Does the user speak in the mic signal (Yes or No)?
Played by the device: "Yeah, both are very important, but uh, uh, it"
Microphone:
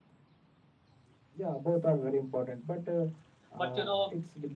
Yes